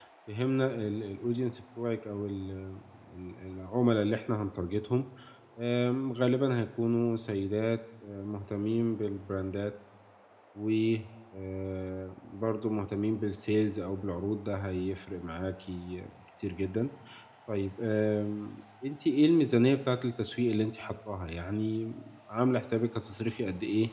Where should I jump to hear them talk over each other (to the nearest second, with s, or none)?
none